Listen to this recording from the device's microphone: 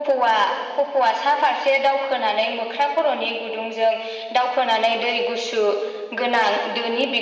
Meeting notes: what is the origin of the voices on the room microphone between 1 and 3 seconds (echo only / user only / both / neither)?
echo only